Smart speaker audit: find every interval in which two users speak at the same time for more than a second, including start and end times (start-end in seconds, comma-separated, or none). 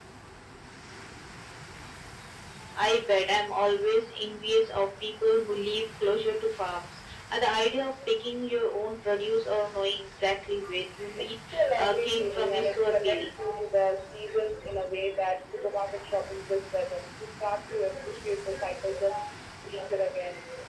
11.2-13.3